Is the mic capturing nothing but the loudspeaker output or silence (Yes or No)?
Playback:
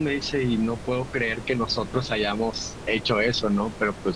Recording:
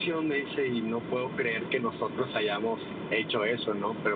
Yes